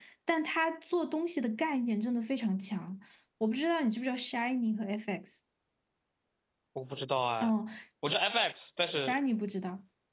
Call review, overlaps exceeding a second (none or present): none